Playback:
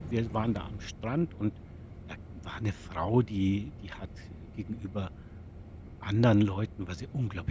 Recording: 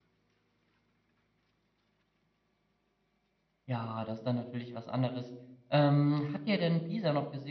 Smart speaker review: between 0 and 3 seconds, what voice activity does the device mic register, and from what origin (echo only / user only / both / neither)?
neither